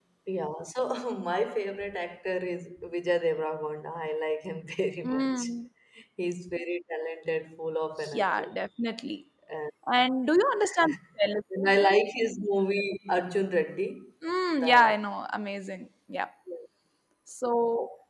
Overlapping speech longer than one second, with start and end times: none

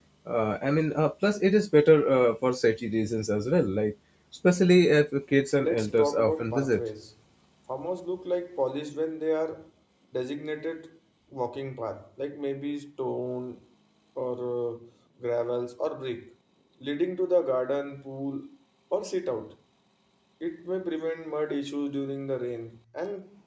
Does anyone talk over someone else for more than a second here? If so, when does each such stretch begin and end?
5.6-6.8

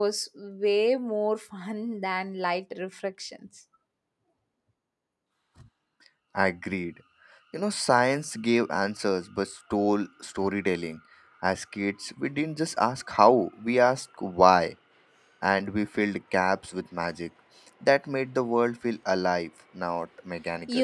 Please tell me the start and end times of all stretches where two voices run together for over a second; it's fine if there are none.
none

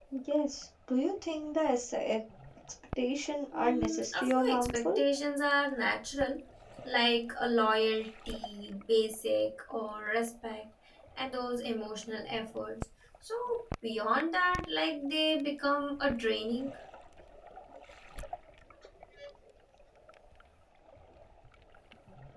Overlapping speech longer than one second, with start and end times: 3.5-5.0

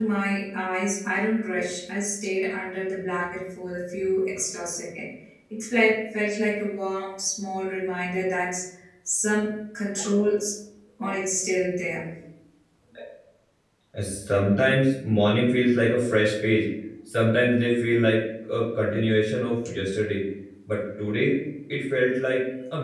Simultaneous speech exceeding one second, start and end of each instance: none

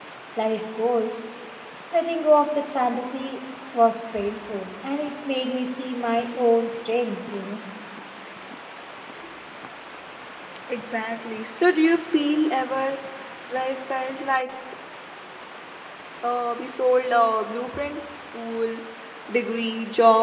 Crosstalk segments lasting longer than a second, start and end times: none

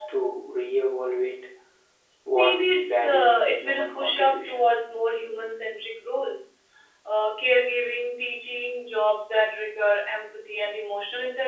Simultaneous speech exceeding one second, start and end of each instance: 2.3-4.7

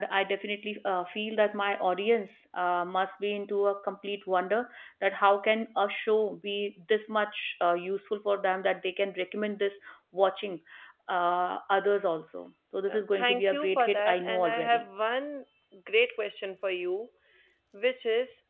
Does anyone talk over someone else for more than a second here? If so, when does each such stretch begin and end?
12.9-14.8

